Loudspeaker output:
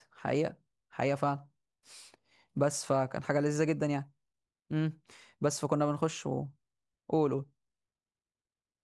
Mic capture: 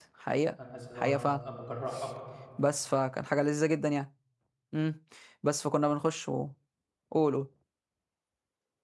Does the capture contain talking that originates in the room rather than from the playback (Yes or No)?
Yes